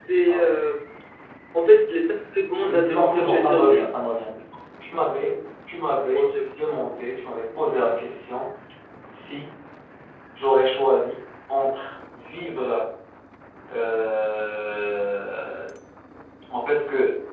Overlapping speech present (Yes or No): Yes